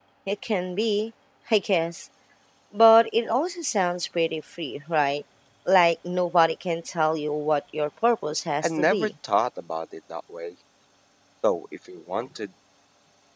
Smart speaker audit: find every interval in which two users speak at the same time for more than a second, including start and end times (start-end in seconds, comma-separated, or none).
none